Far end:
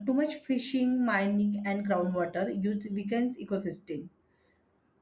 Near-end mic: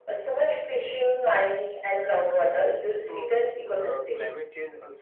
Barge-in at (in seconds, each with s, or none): 3.0 s